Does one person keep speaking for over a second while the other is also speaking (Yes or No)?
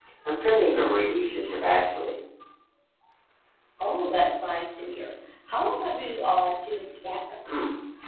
No